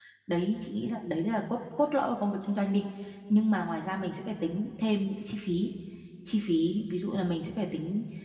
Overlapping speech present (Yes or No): No